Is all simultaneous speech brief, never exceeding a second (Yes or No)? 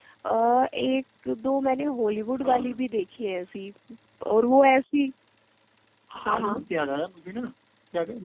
Yes